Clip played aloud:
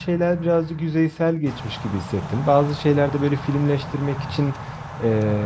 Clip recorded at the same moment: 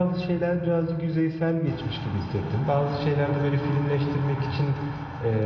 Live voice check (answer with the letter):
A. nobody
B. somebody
A